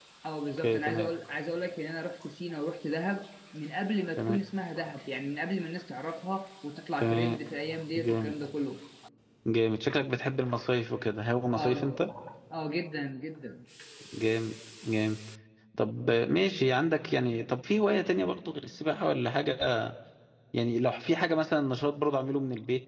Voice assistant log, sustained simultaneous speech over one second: none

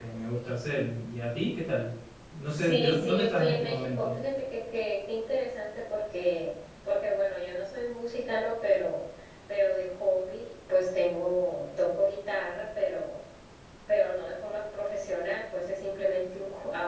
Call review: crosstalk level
present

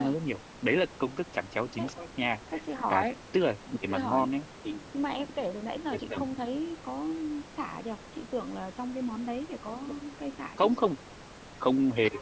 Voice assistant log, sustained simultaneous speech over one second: none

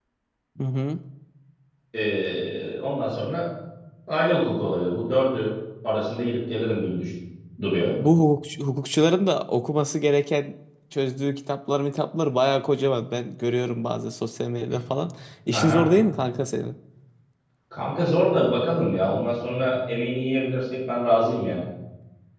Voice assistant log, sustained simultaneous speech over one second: none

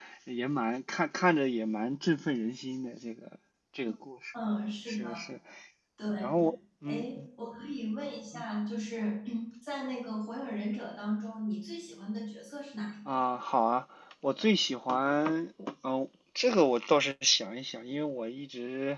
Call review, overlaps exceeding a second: none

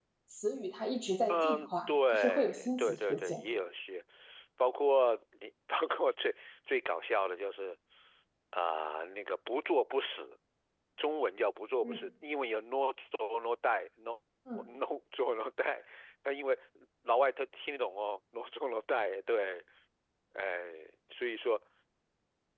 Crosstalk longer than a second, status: present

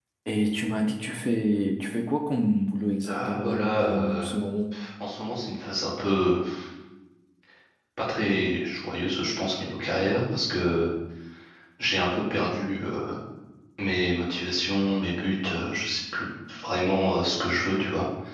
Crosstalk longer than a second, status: present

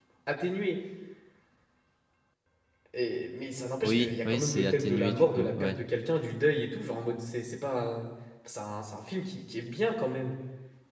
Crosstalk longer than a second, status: present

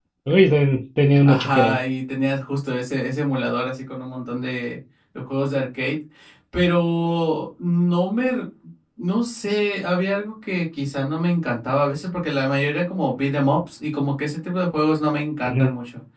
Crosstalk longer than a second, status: none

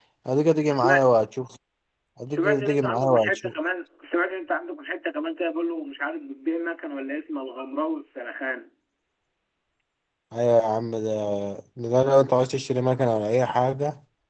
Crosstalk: present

